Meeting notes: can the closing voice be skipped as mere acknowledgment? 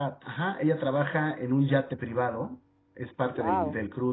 Yes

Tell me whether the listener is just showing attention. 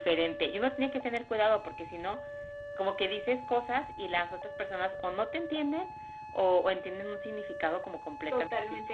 No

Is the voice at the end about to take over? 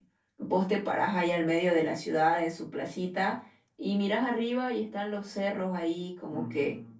No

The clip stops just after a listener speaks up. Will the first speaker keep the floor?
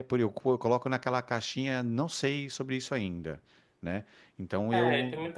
No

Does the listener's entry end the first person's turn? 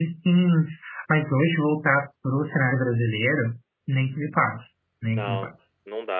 Yes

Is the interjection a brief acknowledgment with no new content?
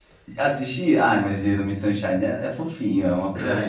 No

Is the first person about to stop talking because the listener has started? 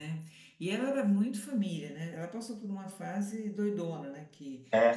No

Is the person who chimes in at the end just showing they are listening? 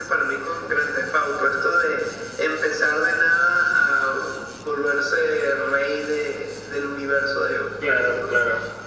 Yes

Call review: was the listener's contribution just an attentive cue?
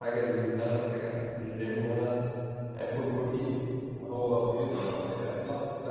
Yes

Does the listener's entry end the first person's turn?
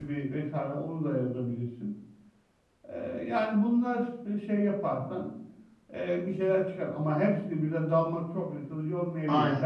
No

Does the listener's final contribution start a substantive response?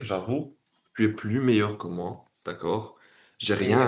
Yes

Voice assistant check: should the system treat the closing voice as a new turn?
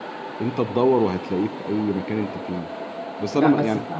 Yes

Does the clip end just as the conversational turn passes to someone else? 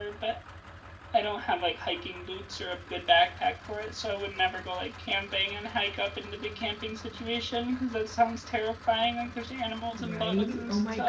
Yes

